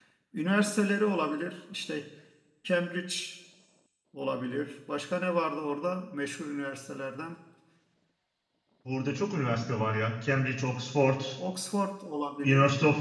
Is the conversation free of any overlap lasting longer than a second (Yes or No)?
Yes